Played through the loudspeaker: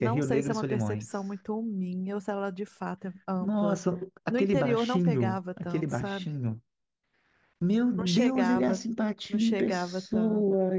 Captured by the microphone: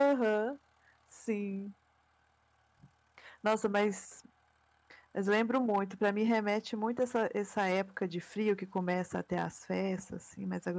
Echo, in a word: none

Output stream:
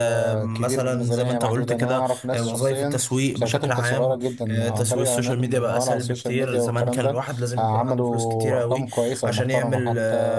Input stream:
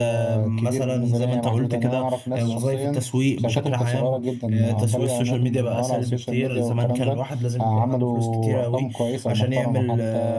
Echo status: present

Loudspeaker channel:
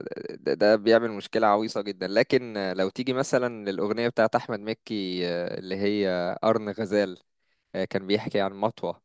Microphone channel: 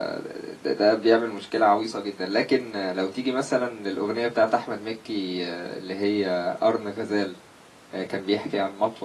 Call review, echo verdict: present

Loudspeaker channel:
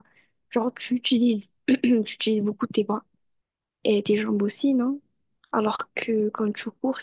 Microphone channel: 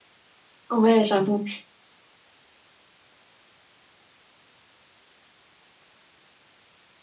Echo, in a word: none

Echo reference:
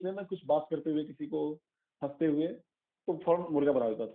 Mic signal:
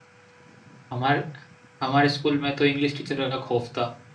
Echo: none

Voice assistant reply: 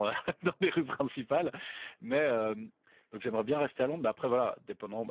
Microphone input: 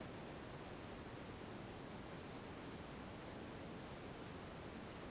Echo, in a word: none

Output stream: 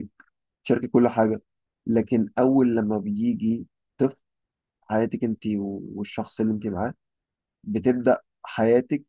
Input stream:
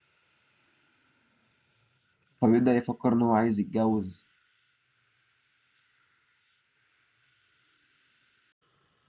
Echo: none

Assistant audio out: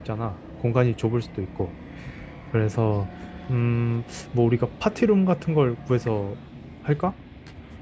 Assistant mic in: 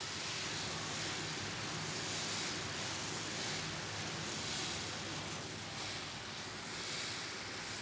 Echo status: none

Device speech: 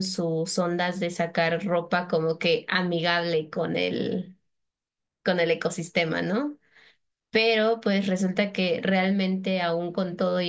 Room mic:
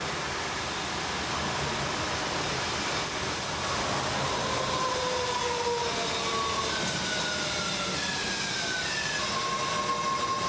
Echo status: none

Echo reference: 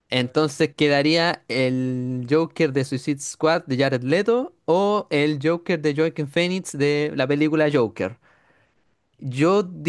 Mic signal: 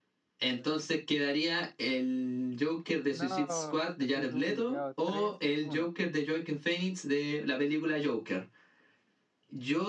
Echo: present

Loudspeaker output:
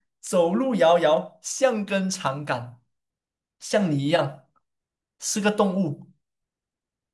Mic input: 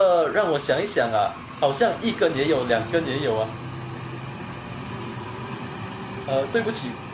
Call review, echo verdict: none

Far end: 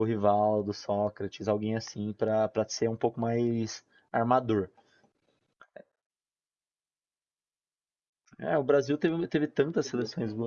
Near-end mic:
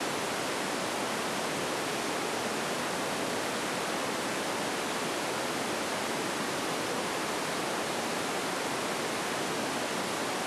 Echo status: none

